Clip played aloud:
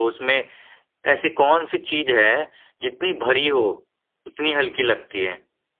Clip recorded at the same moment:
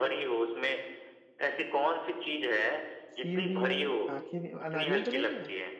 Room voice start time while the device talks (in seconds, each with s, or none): 3.1 s